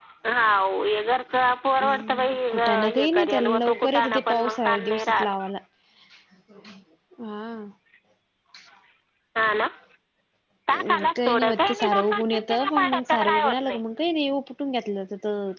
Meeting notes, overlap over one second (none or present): present